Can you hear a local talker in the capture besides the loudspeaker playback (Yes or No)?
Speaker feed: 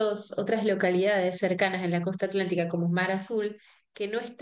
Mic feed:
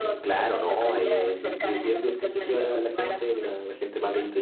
Yes